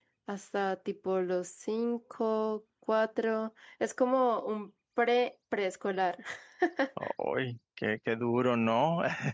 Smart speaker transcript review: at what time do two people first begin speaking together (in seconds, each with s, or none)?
none